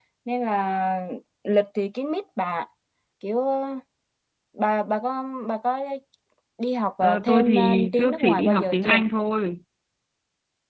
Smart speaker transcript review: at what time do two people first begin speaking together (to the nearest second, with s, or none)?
7 s